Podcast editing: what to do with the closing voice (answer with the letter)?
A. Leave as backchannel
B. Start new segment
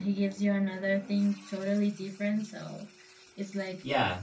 A